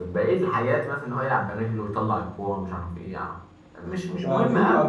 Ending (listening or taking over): taking over